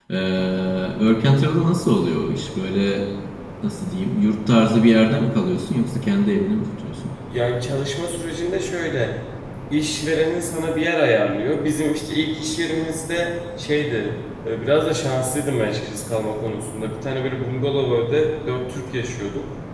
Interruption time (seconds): none

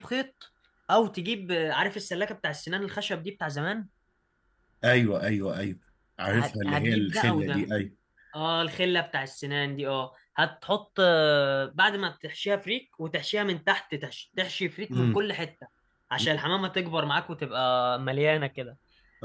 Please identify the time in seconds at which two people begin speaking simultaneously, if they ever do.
6.3 s

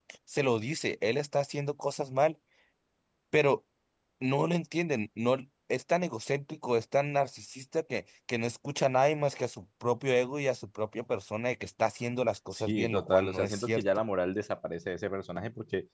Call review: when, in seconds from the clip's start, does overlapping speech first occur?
12.5 s

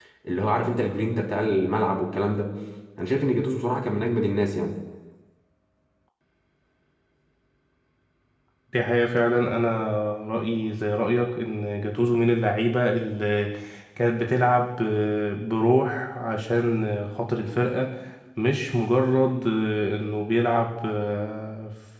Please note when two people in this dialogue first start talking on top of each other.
none

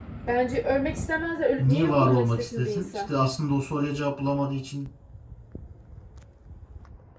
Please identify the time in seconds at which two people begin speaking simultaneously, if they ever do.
1.6 s

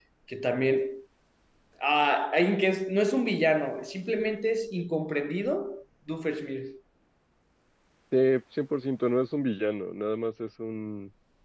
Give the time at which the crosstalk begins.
none

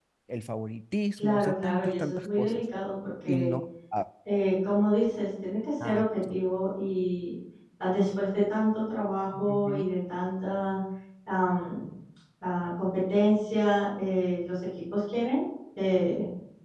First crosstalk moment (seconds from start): 1.2 s

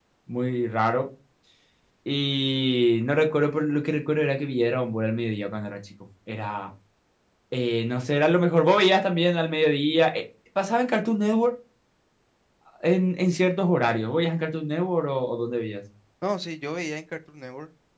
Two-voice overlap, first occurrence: none

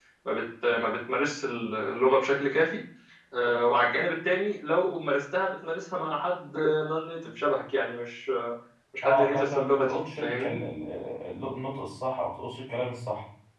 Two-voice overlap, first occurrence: 9.0 s

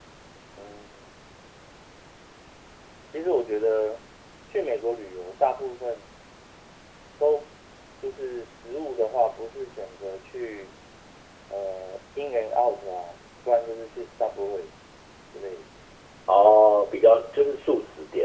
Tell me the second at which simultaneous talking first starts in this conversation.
none

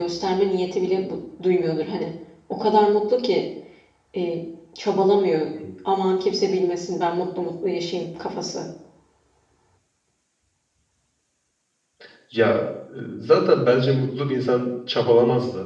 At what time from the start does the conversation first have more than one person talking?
none

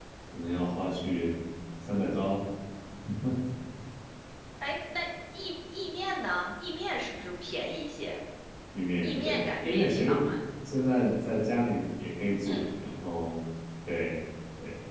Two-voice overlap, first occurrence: 9.0 s

